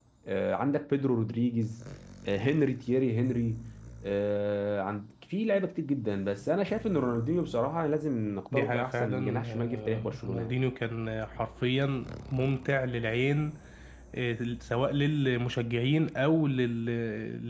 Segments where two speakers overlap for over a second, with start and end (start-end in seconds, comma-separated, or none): 8.5-10.6